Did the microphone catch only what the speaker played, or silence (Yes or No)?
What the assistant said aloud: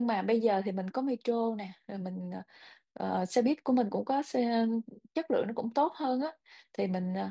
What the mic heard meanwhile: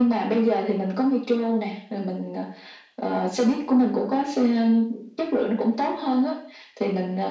Yes